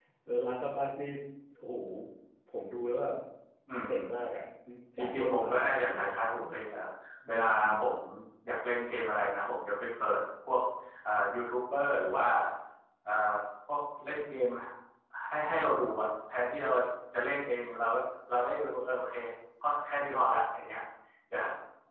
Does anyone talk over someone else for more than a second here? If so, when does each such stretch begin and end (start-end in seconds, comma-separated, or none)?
5.0-6.3